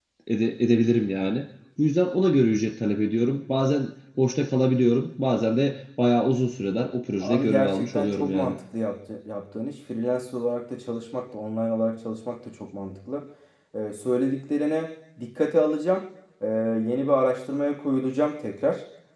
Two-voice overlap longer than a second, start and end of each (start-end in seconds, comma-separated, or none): 7.2-8.6